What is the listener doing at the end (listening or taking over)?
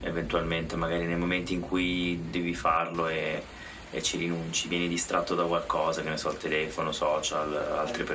listening